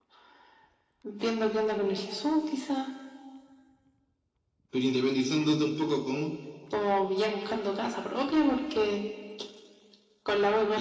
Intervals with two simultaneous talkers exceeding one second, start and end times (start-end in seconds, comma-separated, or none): none